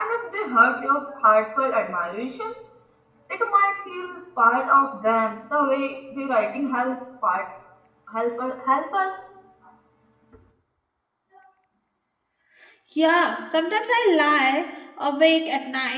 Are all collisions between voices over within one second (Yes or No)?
Yes